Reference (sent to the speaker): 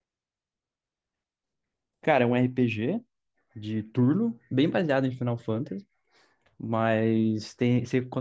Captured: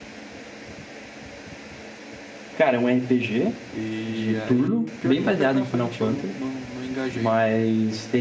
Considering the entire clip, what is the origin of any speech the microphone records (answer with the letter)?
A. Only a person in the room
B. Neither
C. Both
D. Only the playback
C